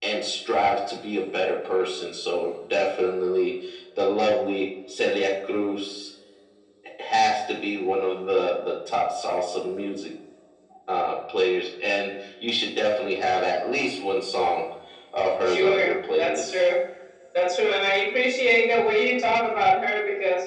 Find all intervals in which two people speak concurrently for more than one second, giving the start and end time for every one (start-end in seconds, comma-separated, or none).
15.4-16.7